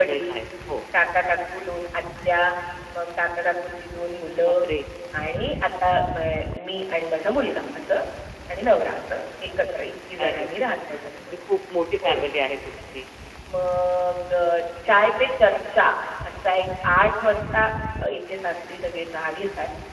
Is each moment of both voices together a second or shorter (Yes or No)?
Yes